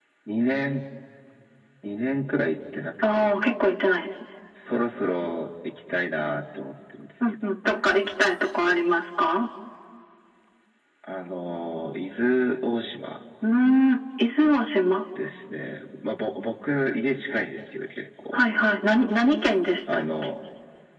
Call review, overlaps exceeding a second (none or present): none